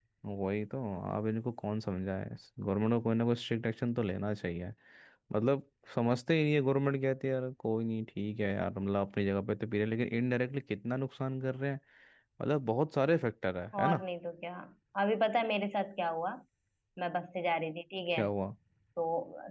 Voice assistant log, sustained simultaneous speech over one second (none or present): none